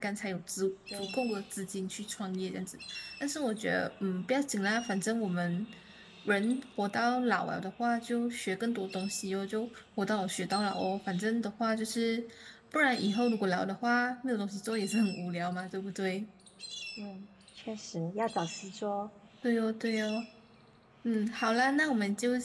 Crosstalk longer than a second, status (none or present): none